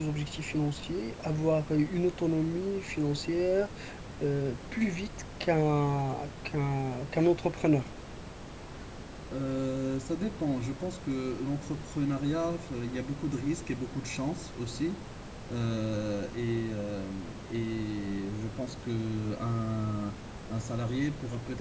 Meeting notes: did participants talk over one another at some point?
No

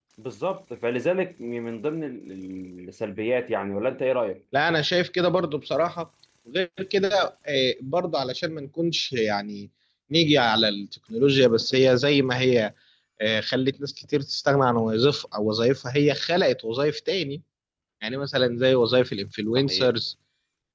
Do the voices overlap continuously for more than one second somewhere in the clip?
No

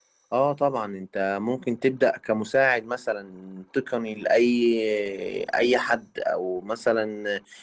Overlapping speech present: No

